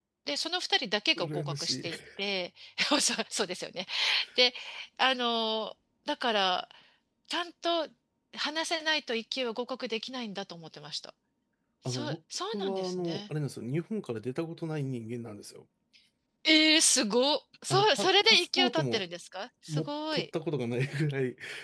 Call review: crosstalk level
present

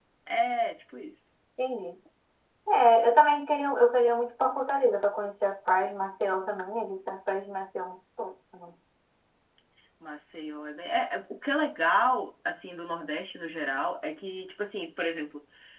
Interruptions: none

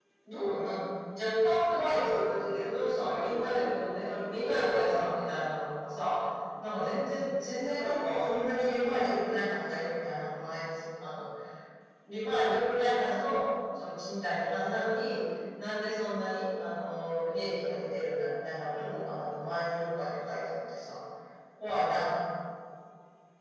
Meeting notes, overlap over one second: present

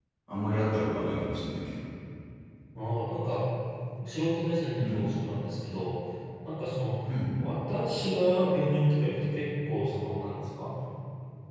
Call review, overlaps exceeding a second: none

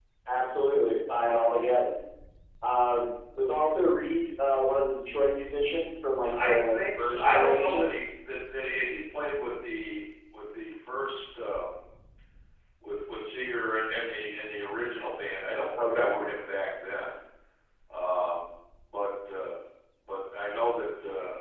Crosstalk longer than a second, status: present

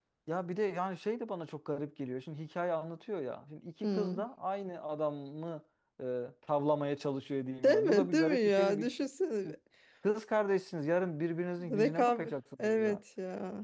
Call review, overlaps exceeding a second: present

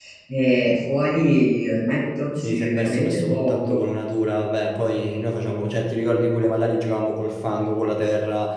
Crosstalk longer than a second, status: present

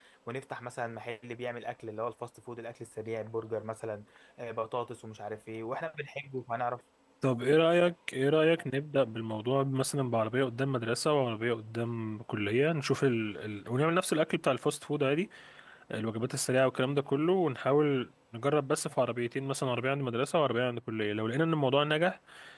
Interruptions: none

